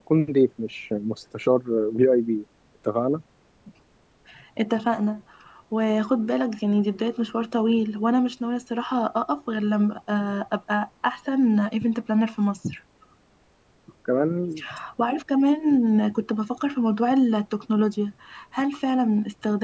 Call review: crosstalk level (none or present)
none